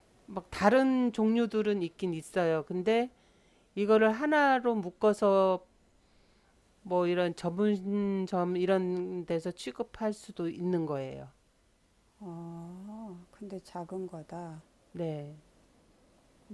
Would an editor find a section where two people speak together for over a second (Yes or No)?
No